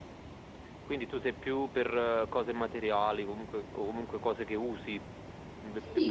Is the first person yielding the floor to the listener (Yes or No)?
Yes